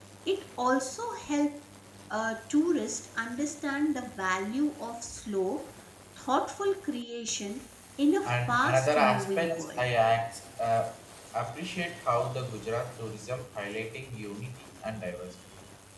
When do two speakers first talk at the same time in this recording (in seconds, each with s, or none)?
8.2 s